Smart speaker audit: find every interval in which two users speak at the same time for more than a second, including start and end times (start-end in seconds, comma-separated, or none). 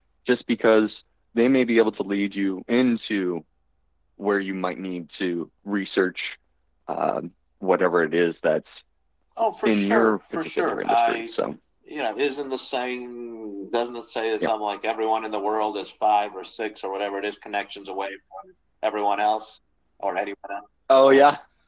9.6-11.3